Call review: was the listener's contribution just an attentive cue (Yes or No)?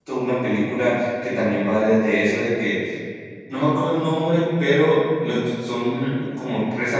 Yes